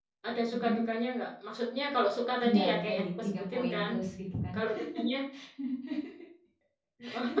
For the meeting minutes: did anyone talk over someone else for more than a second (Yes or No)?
Yes